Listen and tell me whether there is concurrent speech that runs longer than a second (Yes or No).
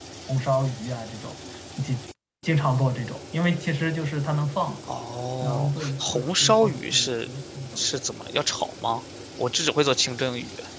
Yes